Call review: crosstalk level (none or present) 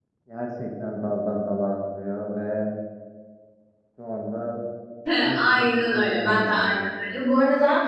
present